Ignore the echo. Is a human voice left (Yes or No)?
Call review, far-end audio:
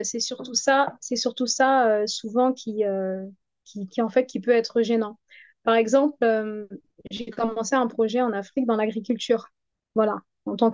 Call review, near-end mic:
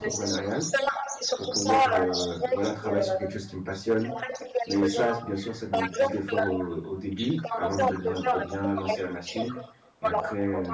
Yes